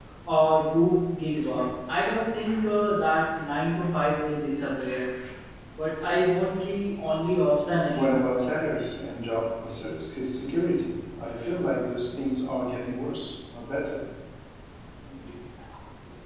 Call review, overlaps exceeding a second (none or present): none